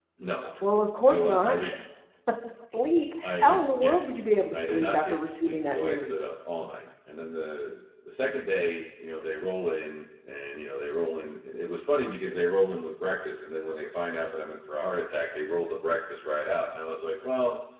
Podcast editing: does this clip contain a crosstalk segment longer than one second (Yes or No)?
Yes